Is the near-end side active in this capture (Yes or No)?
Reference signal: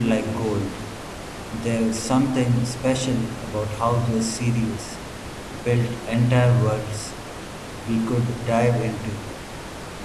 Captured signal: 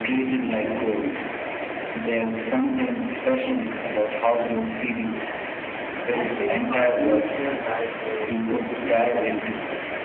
Yes